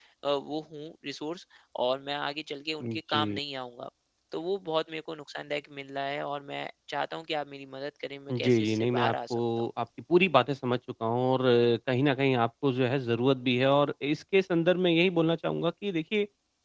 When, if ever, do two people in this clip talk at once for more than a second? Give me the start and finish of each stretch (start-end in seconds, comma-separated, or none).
8.3-9.7